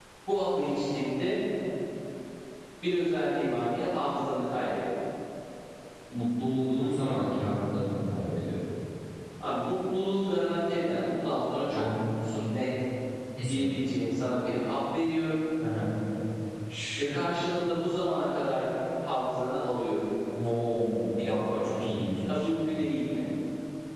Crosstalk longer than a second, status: none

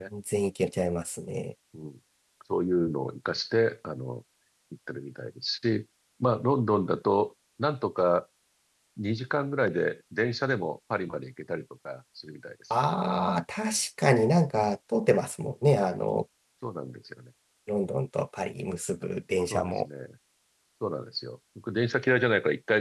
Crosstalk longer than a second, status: none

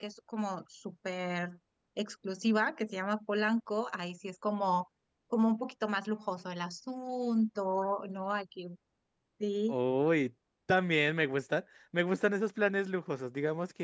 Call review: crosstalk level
none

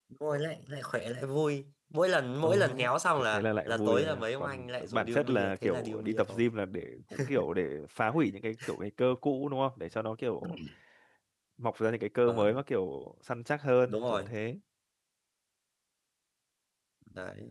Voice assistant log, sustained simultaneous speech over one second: present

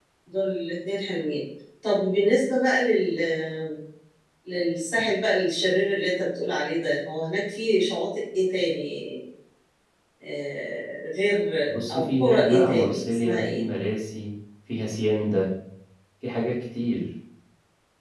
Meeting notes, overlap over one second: present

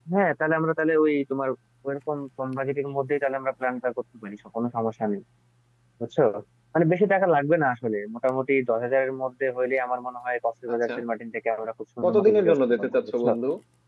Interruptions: present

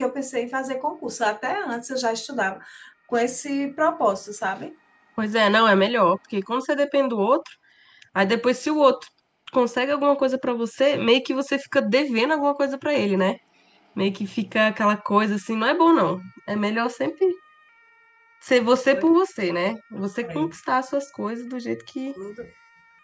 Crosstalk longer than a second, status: none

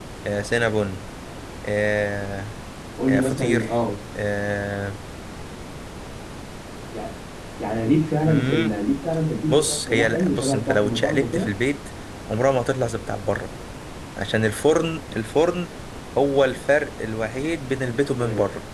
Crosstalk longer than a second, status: present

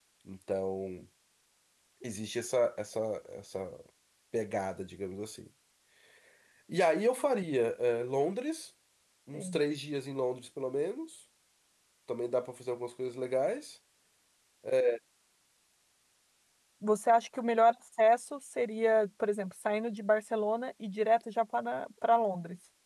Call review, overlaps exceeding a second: none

